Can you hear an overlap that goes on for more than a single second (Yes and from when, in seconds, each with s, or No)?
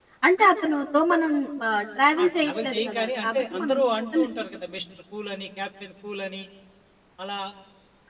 Yes, from 2.2 s